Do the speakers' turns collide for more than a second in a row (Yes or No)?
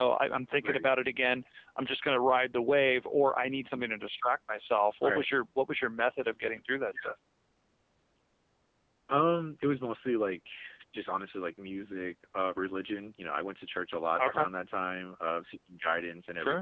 No